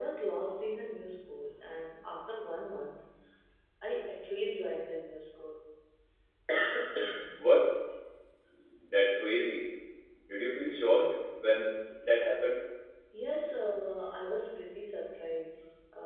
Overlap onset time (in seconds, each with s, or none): none